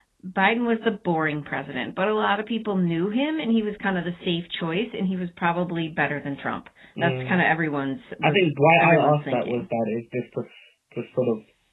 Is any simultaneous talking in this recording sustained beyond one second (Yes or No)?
Yes